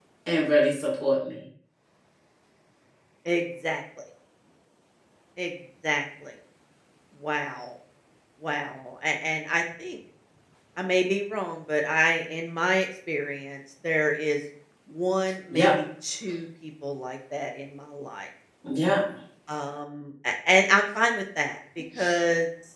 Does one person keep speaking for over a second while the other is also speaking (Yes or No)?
No